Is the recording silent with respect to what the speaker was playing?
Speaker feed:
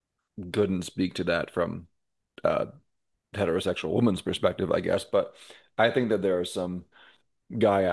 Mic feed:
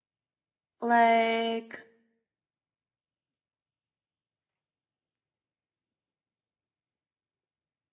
Yes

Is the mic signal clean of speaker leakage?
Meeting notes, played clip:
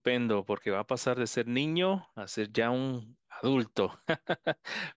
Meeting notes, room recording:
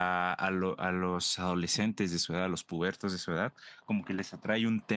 Yes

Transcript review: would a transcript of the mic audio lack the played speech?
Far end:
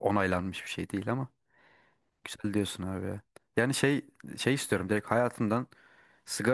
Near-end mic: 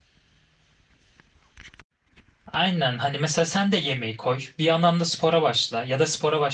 Yes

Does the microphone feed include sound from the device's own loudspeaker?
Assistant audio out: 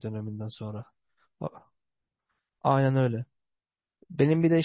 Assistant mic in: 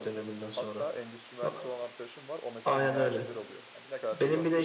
Yes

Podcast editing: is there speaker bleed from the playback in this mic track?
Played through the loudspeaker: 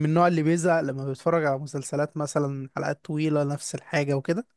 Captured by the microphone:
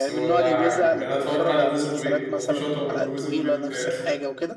Yes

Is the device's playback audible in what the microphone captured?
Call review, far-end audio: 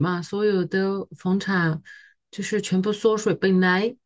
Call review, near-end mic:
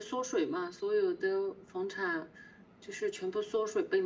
Yes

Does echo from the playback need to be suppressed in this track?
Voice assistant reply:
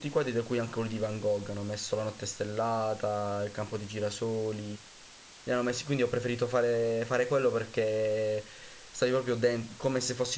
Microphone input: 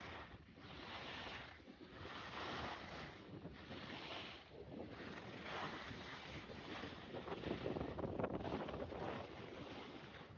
No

